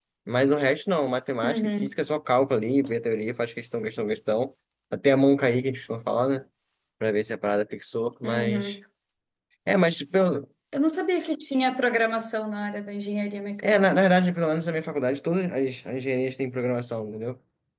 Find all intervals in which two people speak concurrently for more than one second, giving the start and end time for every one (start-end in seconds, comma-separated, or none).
none